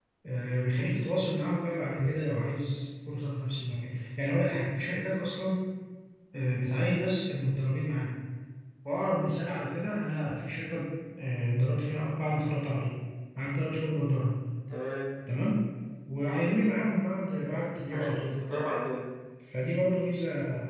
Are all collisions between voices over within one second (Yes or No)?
Yes